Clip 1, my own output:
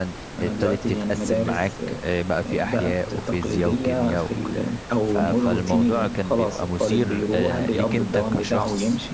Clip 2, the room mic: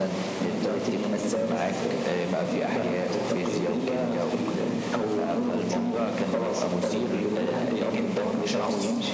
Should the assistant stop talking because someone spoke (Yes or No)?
No